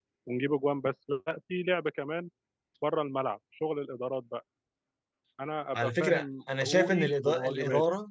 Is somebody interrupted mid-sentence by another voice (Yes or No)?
Yes